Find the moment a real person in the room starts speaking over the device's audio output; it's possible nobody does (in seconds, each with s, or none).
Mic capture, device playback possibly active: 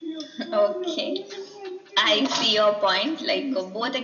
none